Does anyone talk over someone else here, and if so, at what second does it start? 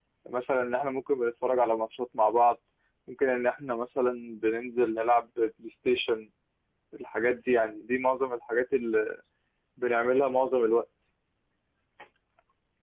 none

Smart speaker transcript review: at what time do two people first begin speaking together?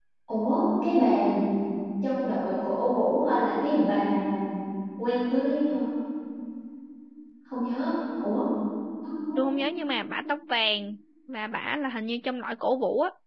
none

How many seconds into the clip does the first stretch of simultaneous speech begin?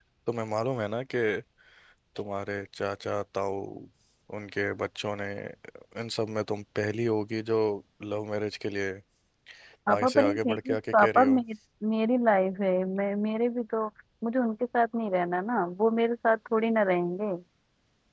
9.9 s

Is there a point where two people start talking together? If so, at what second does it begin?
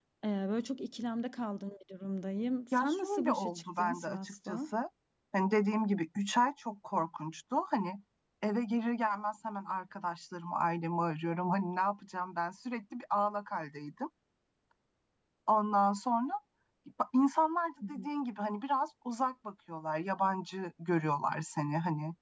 2.7 s

